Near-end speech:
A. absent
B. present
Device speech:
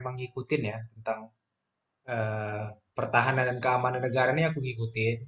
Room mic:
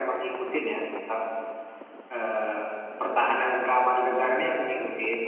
A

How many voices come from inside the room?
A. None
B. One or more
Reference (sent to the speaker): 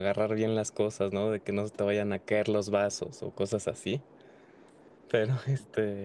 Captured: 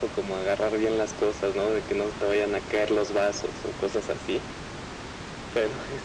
A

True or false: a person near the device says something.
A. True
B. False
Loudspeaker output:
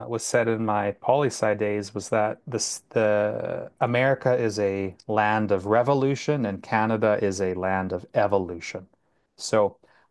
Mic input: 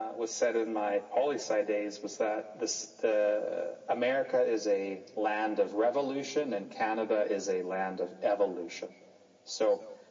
B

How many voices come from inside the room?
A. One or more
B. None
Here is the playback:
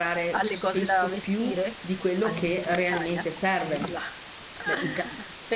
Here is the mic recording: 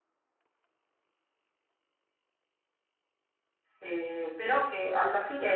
A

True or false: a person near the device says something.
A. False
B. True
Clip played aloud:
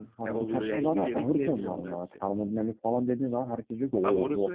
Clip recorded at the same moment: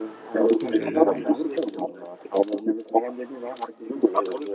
B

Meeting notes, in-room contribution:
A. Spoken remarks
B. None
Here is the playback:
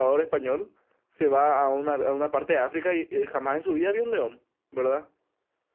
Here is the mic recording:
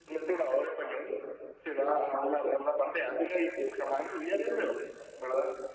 B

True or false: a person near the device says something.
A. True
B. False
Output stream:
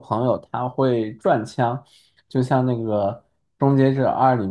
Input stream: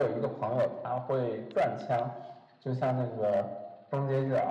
B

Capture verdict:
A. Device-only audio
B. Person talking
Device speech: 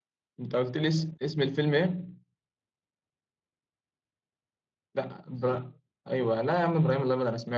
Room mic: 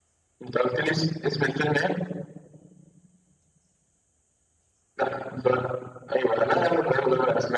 A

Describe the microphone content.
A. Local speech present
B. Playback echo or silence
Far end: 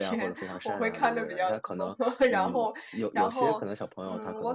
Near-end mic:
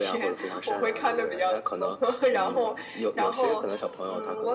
B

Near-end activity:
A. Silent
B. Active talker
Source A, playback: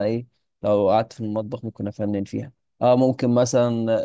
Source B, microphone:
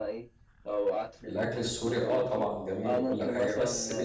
B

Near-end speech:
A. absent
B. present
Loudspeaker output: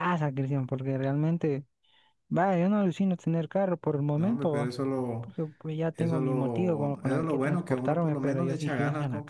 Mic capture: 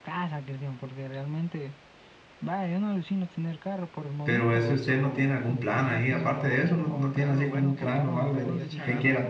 B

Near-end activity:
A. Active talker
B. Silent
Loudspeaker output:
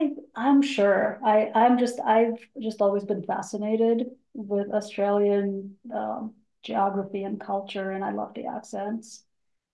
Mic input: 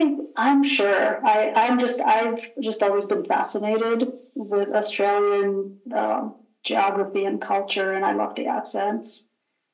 B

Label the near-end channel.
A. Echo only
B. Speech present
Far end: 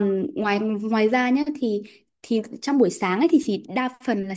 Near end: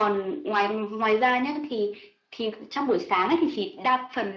A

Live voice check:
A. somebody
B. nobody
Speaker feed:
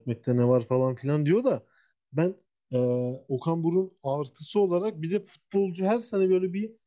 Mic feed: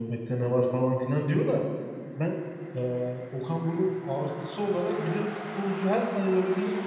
B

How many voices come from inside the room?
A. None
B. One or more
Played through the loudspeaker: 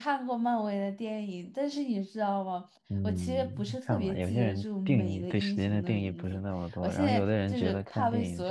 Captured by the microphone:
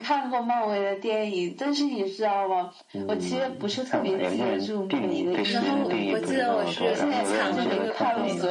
B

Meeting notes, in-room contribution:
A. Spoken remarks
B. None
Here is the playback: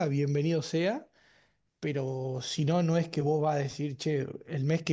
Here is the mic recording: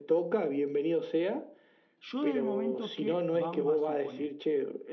A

